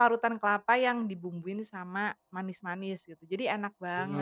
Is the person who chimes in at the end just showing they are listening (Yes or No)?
No